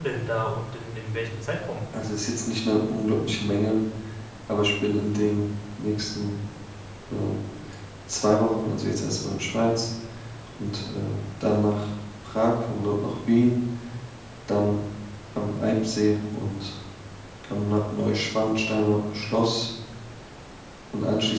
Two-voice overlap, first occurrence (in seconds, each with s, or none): none